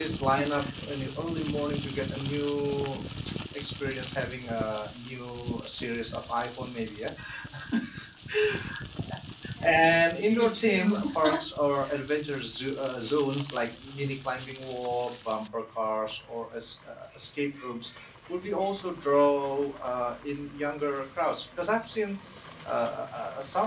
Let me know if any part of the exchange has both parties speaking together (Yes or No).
Yes